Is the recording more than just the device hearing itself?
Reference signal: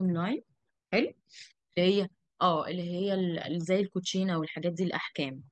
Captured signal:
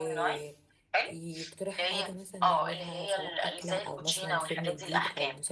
Yes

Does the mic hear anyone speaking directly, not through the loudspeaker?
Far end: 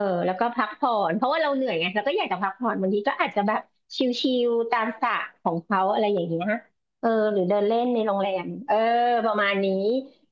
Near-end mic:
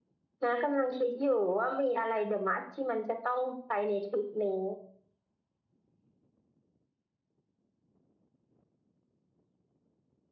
Yes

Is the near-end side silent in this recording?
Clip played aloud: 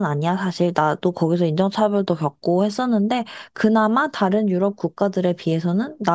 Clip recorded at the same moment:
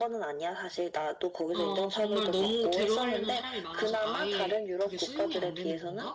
No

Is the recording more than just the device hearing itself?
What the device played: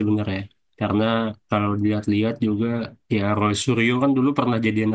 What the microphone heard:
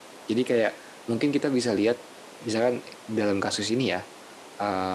Yes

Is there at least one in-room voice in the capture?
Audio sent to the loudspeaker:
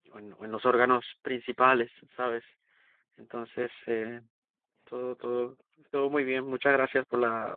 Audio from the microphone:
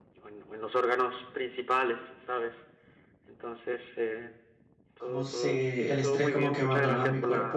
Yes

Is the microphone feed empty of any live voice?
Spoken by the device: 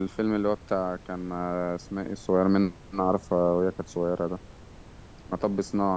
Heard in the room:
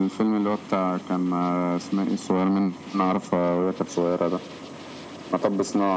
Yes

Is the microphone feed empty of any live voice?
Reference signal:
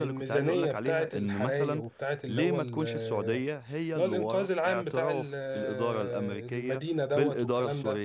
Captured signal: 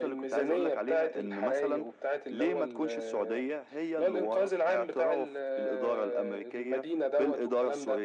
Yes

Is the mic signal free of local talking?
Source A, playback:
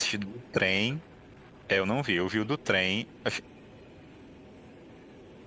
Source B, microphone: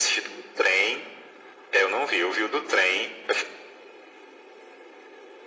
Yes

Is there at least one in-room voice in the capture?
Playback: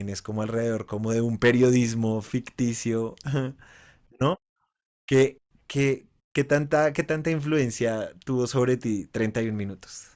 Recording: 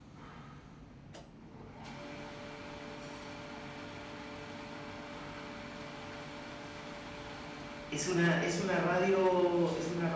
Yes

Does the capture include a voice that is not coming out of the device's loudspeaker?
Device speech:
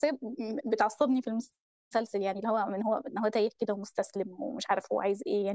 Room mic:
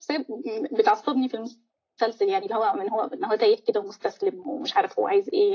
No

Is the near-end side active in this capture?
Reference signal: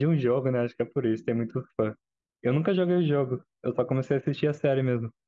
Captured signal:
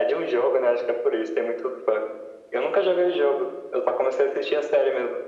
No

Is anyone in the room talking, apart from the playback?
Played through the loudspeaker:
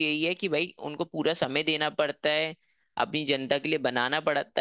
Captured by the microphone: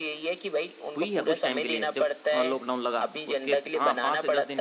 Yes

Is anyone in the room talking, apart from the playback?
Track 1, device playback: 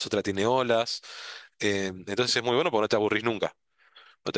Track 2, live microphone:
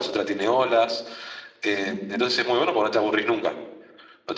Yes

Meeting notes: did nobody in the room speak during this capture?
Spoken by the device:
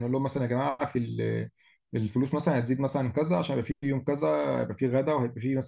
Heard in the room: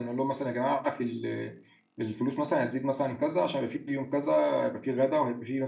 Yes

